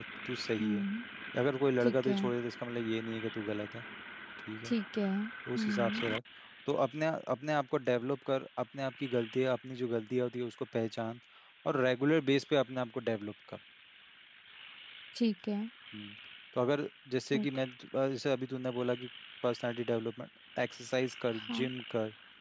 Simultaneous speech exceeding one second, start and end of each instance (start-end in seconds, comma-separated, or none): none